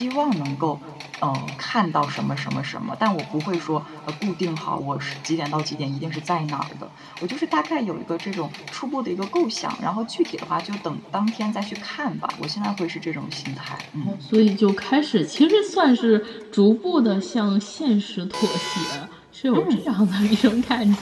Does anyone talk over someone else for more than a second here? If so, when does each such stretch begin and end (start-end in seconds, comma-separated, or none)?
none